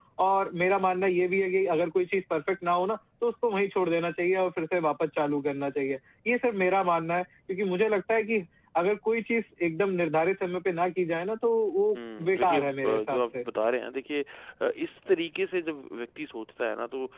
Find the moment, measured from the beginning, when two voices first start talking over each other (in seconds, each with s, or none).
11.9 s